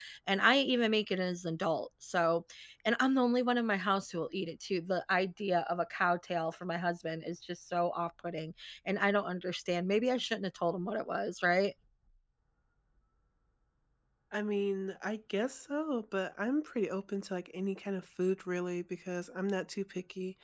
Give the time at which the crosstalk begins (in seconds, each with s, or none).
none